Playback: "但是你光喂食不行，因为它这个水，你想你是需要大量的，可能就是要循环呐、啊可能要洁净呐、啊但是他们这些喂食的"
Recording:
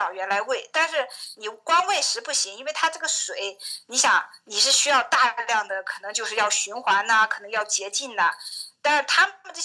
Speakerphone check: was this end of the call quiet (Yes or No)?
Yes